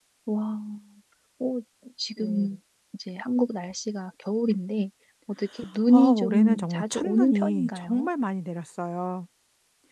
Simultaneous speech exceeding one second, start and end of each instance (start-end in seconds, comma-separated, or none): 5.9-8.1